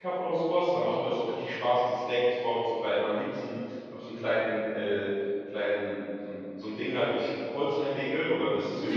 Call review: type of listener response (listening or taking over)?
listening